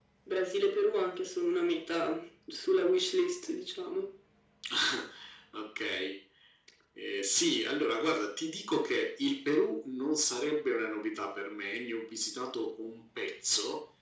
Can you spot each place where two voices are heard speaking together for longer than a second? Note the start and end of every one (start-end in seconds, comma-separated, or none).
none